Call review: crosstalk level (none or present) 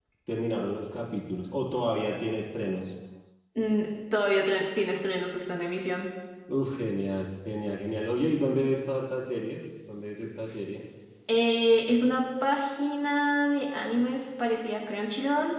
none